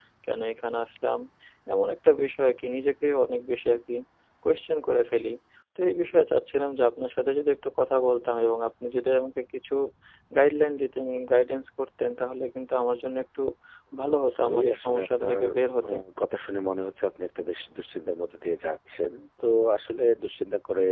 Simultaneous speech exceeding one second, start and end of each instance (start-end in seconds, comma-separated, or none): 14.1-15.4